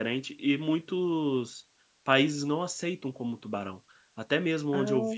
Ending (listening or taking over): listening